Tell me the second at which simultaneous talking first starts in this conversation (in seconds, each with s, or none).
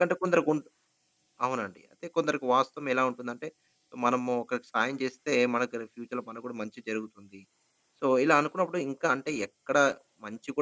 none